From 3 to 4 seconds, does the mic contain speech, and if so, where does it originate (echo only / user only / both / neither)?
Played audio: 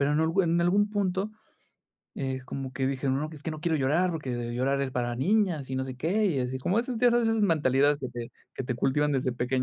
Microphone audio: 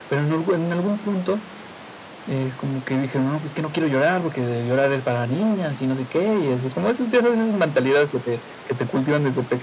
echo only